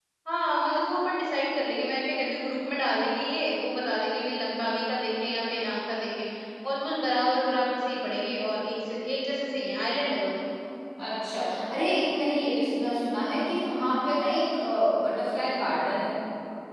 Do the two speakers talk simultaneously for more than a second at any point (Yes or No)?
No